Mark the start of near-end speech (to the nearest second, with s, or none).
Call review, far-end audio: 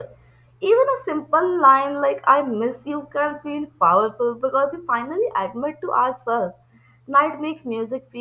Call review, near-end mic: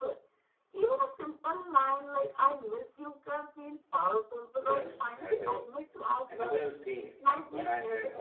5 s